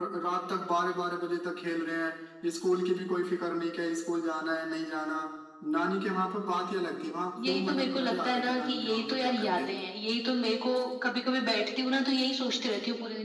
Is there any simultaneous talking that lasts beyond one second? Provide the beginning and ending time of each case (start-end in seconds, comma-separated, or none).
7.4-9.5